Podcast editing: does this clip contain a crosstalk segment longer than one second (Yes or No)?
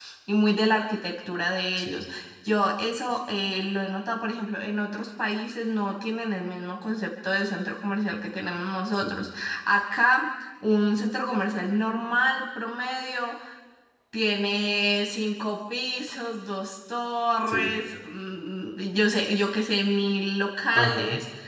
No